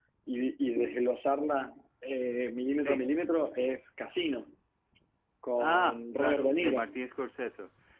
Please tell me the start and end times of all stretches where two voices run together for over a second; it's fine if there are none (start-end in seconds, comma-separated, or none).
5.6-7.0